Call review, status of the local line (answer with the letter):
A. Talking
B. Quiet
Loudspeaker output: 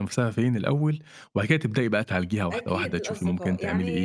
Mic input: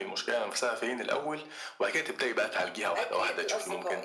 B